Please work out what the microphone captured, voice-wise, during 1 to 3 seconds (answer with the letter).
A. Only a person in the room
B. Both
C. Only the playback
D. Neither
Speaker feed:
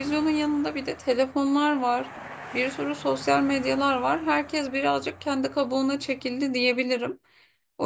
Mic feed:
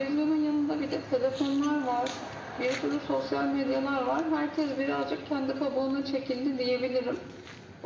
C